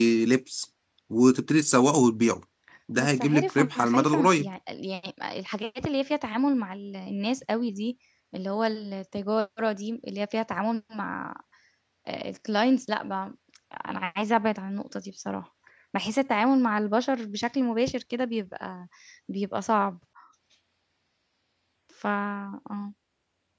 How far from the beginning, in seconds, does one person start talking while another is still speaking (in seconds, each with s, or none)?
3.0 s